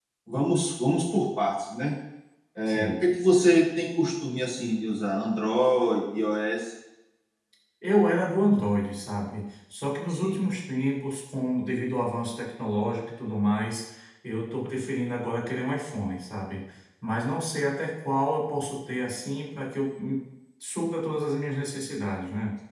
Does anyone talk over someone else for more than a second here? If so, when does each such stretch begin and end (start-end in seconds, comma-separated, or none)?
none